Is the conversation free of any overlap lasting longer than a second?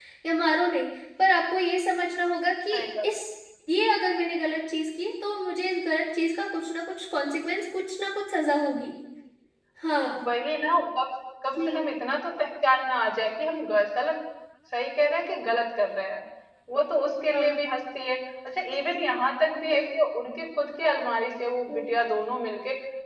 Yes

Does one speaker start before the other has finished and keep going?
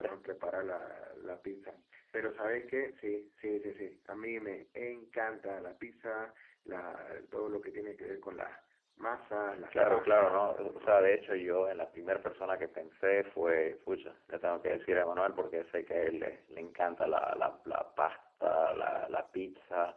Yes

